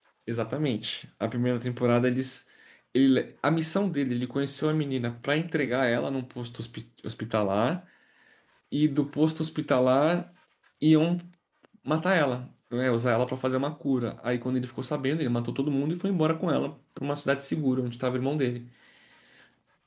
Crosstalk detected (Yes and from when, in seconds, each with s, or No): No